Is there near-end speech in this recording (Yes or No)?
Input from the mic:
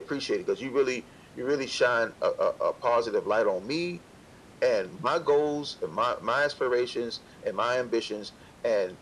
No